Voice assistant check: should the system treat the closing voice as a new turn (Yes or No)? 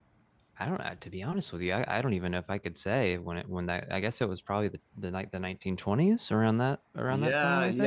Yes